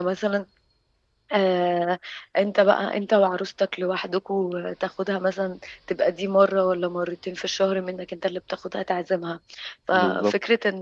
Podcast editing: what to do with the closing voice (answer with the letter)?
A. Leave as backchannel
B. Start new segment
A